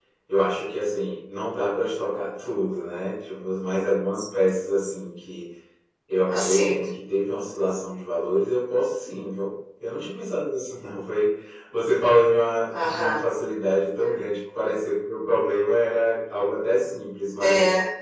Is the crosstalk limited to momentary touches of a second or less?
Yes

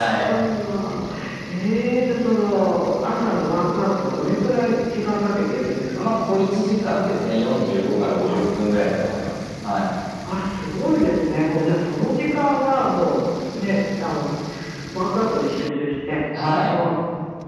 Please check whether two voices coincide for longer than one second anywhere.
No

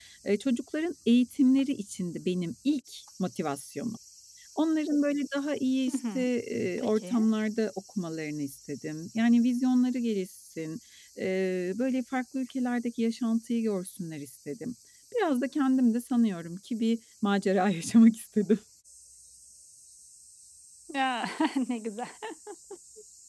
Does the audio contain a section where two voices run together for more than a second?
No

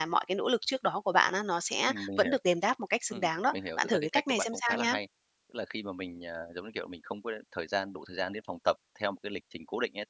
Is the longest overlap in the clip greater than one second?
Yes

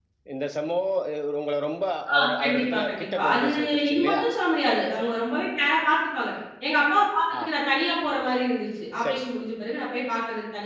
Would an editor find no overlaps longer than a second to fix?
No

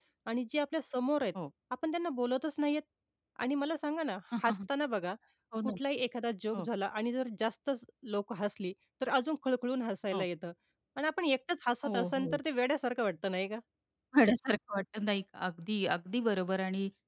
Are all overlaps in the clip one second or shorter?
Yes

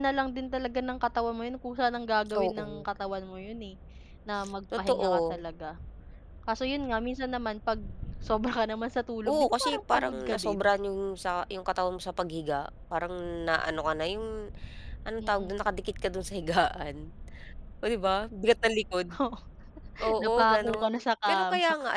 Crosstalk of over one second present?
Yes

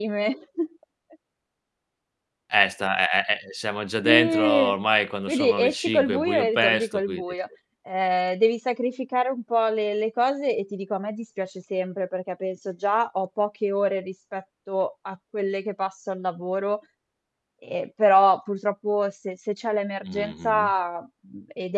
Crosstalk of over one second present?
Yes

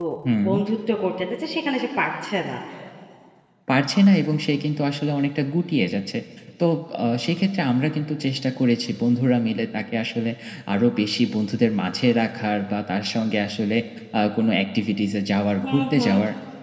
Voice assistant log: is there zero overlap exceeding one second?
Yes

